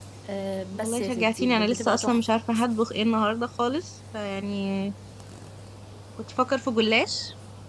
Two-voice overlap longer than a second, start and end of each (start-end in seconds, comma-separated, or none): 0.7-2.3